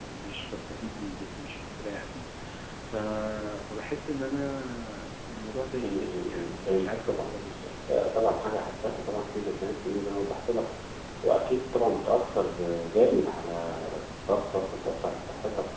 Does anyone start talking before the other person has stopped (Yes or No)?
Yes